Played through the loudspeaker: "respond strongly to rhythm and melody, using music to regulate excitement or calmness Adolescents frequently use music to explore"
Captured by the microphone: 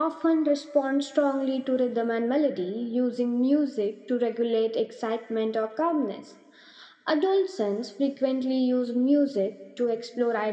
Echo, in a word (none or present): present